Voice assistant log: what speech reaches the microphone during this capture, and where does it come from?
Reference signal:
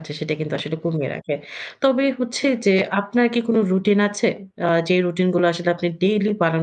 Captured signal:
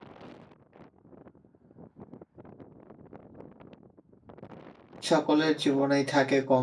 user only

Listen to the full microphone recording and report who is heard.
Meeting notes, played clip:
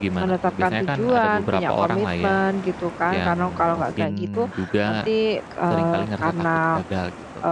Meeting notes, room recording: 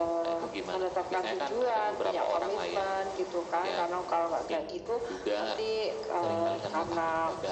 both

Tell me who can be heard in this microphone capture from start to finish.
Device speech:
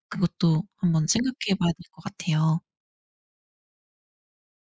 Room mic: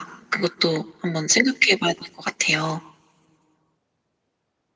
echo only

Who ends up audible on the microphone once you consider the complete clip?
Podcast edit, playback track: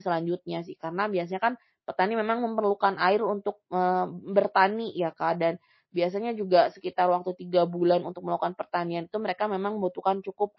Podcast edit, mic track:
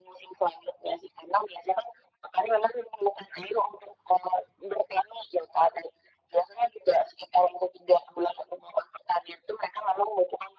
echo only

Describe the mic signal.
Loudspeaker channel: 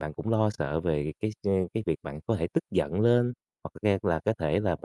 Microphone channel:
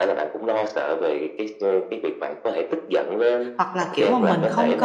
both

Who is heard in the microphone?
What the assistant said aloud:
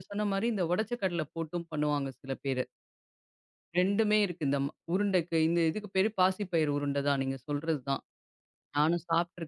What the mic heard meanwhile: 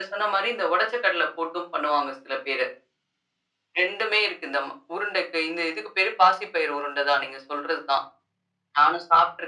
echo only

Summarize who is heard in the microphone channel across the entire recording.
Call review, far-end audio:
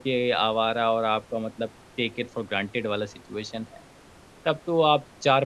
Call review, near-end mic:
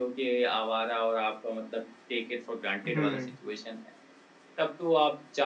both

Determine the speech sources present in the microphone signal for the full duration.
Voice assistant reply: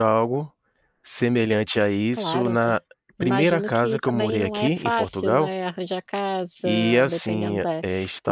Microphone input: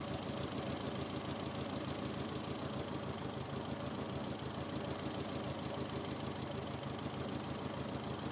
neither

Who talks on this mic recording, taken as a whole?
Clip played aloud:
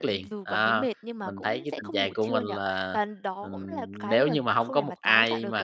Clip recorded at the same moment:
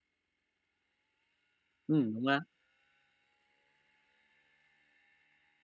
user only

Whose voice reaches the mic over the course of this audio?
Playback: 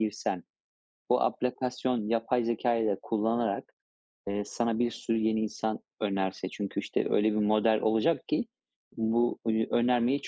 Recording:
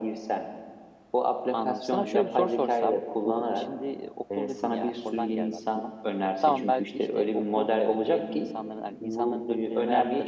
both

